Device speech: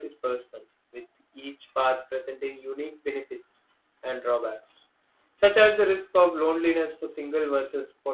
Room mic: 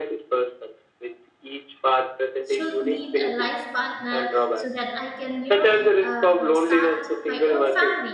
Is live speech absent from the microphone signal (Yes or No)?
No